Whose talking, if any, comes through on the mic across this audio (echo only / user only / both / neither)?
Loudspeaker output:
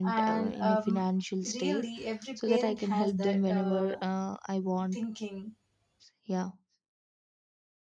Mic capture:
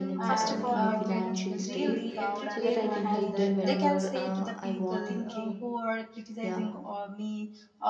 both